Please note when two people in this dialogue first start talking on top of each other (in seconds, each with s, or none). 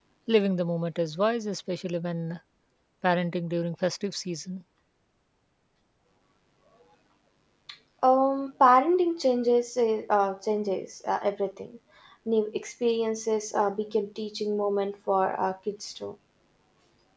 none